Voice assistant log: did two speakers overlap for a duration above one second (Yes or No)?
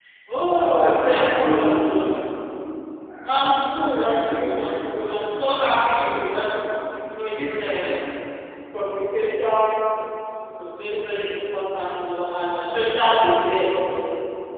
Yes